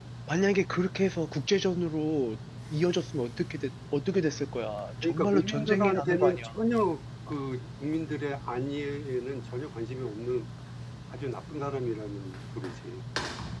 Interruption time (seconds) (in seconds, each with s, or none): 5.0 s